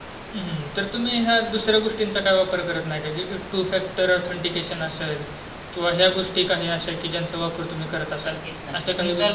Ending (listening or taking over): taking over